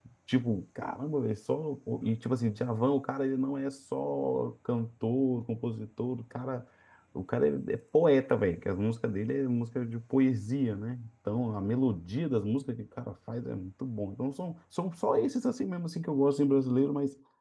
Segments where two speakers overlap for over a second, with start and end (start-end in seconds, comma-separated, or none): none